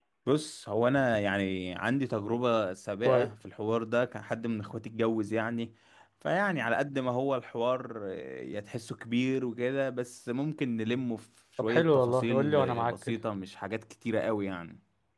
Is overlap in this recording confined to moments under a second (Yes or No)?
No